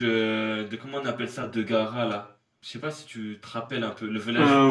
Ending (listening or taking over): taking over